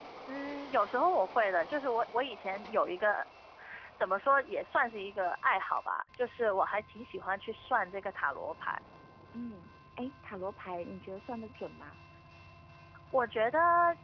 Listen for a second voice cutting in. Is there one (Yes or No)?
No